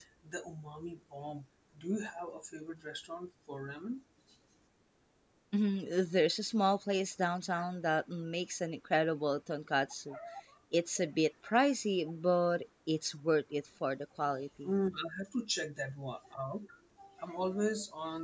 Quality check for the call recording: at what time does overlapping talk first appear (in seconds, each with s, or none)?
none